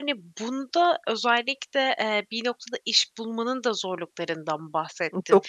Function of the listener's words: listening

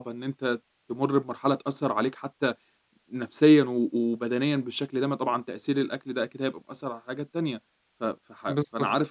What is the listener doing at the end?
listening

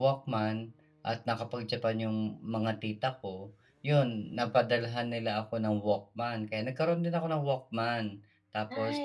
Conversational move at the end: listening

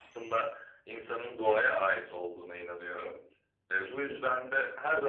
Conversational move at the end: listening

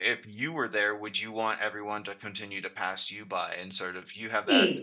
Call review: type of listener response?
listening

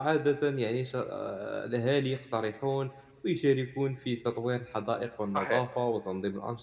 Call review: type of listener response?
listening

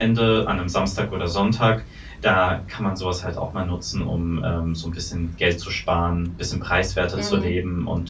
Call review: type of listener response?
listening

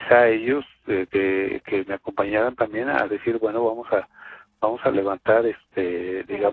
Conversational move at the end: listening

